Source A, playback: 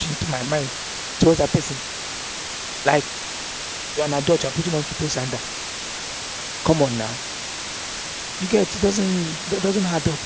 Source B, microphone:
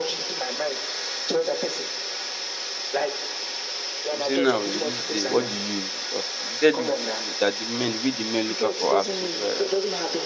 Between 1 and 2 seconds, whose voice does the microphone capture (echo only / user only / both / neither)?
echo only